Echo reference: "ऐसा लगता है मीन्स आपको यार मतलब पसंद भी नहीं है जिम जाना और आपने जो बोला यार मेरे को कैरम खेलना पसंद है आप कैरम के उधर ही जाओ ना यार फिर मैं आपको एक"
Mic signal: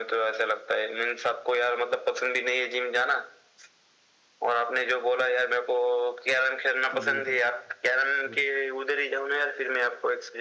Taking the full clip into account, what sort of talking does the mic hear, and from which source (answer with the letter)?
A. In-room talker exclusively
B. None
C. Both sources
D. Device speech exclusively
C